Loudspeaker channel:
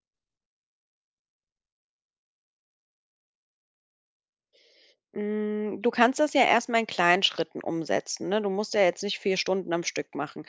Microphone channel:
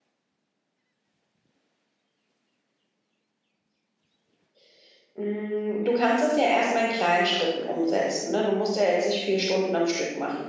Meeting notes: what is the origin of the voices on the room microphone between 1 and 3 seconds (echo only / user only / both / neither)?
neither